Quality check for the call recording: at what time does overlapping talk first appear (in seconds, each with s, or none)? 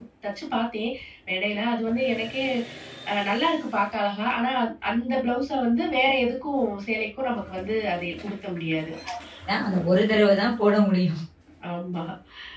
none